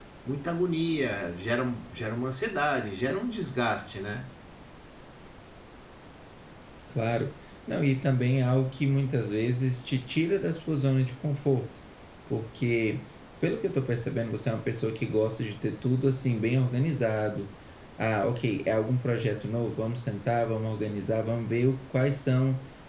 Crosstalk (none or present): none